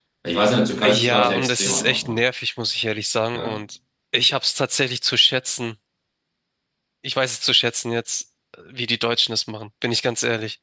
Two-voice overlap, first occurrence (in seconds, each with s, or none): 0.8 s